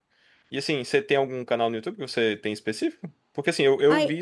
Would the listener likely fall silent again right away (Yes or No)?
Yes